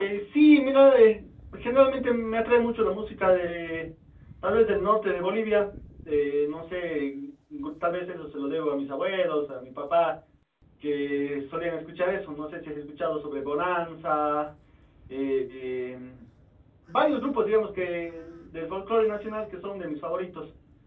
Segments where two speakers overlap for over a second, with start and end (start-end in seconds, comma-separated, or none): none